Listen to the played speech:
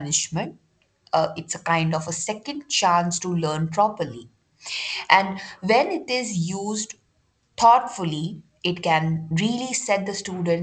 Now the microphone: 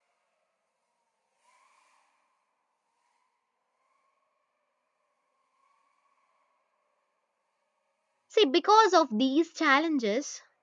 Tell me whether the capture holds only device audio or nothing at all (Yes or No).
No